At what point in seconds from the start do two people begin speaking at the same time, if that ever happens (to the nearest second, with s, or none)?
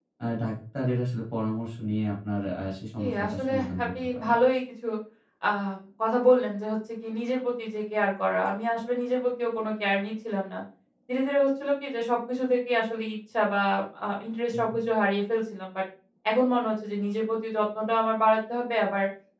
3 s